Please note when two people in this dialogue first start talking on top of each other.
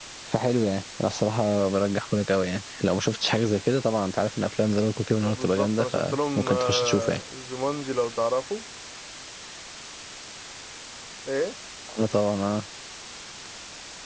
5.2 s

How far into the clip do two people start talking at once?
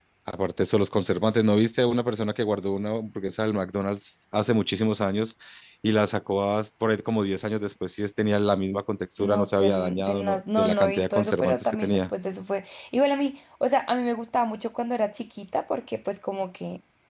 9.2 s

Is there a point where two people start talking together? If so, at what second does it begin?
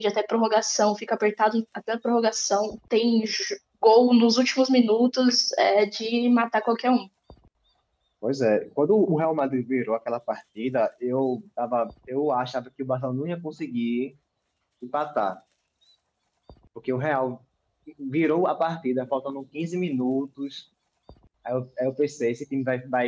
none

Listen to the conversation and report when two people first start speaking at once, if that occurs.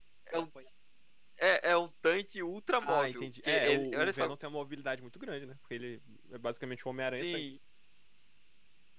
2.8 s

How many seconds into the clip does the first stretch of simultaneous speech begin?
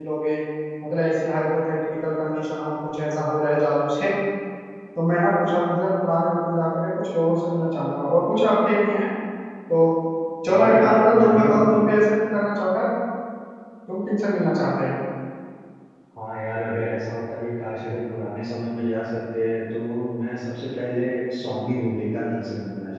10.5 s

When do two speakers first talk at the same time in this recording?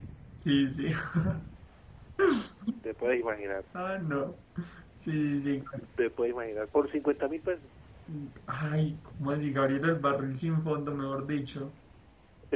none

